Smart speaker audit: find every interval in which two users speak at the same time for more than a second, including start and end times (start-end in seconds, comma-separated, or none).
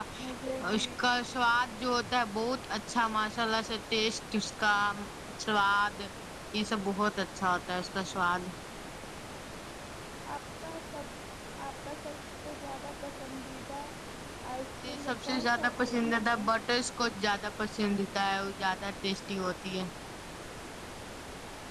14.8-16.4